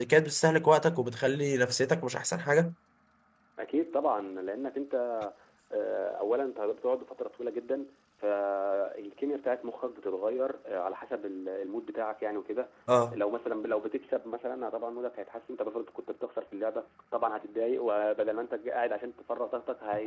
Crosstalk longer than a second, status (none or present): none